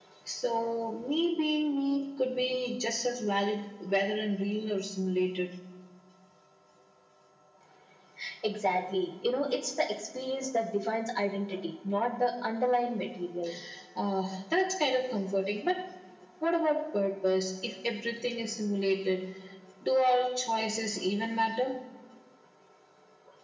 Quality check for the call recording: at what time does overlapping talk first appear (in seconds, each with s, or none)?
none